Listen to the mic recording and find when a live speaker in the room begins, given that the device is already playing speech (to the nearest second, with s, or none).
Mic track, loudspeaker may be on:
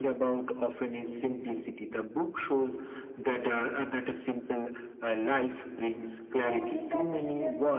6 s